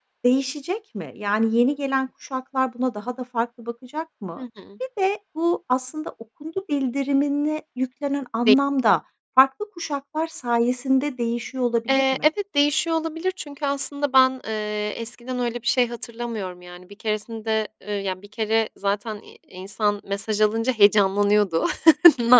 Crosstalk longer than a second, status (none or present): none